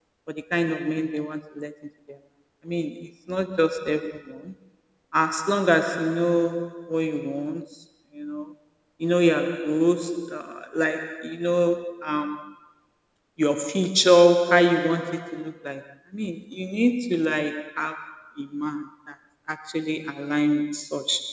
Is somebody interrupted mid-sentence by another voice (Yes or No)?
No